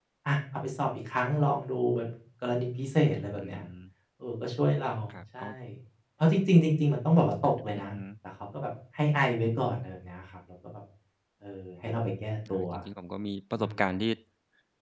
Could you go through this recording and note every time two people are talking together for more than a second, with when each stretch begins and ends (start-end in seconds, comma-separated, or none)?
none